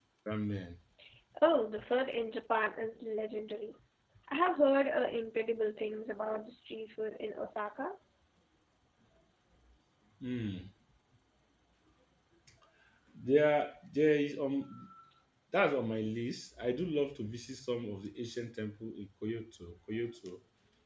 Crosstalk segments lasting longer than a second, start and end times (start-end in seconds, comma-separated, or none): none